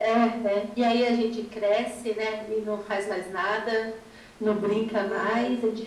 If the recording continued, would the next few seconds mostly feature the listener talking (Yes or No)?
No